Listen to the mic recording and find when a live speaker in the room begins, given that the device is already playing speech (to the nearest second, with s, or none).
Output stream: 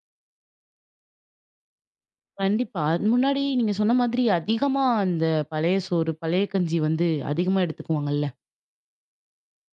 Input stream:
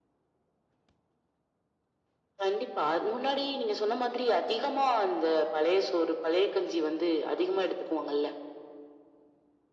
none